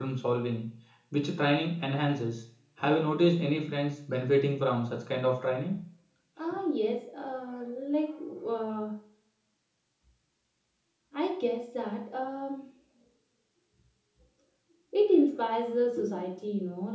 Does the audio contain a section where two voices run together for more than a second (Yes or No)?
No